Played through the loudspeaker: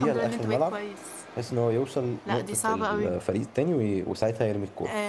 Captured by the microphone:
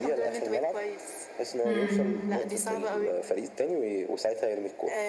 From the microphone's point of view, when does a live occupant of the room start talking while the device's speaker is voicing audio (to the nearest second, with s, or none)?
2 s